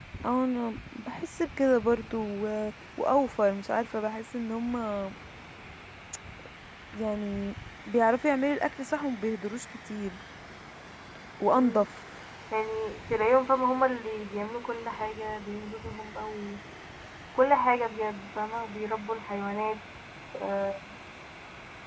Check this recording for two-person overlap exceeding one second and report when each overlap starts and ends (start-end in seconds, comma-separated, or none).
none